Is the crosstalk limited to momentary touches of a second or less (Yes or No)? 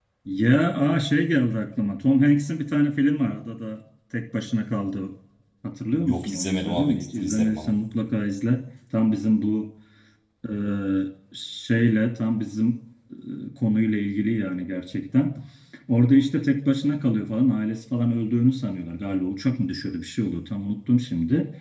No